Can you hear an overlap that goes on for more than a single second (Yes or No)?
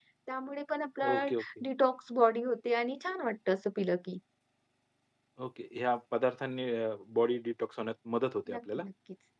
No